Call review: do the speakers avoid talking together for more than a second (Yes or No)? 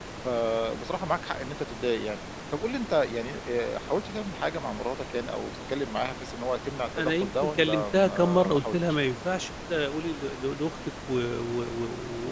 No